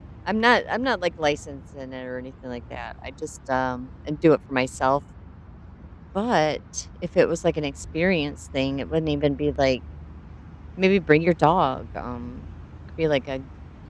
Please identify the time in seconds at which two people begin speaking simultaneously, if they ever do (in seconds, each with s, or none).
none